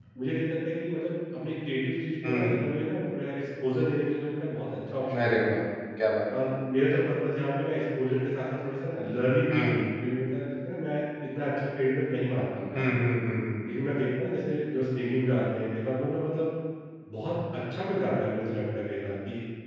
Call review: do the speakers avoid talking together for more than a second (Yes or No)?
Yes